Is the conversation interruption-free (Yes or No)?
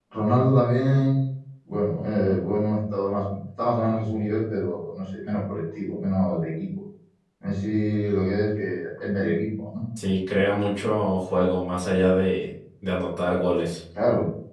Yes